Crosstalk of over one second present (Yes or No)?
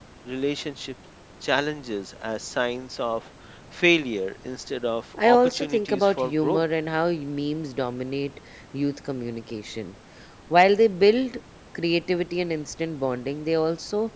Yes